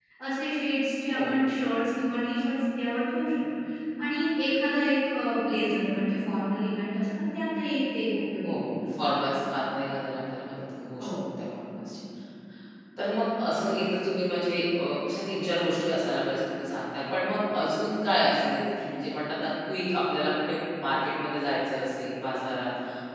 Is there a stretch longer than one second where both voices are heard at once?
No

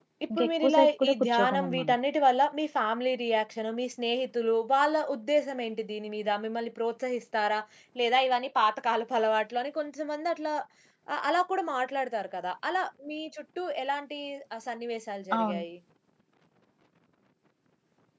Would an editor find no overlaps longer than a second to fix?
No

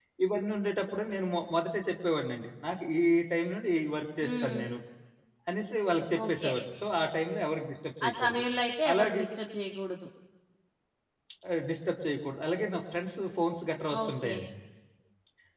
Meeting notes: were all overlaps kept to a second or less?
Yes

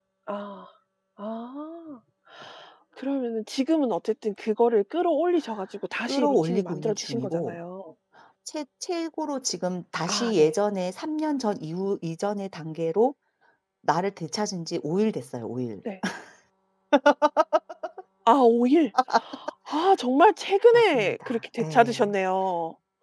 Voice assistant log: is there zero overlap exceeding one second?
No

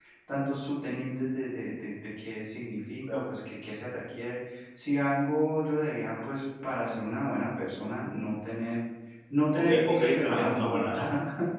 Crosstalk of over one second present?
Yes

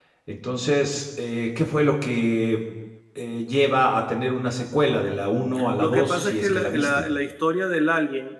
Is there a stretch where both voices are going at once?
Yes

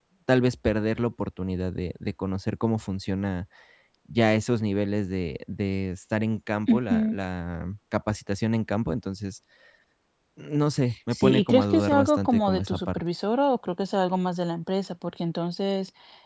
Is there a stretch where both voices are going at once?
Yes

